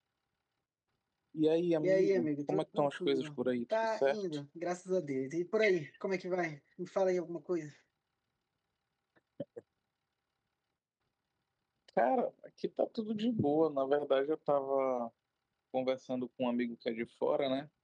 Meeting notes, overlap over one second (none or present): present